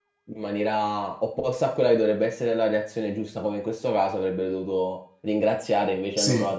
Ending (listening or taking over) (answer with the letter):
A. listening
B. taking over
A